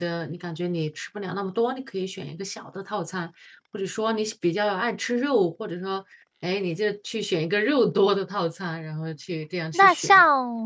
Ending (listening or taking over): taking over